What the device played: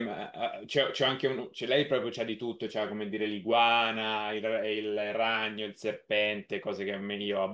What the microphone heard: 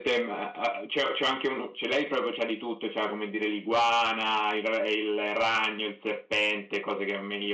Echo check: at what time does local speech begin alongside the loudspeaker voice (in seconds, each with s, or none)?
none